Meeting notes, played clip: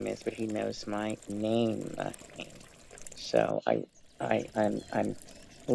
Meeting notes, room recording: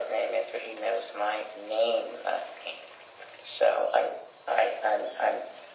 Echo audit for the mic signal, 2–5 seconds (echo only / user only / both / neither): echo only